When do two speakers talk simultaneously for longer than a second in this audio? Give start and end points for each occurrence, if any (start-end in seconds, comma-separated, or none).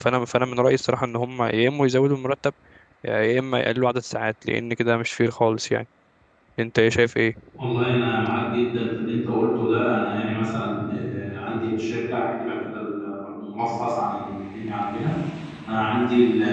none